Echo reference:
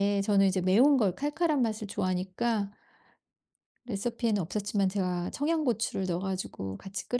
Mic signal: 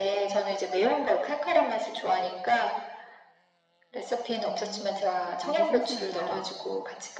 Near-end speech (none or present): present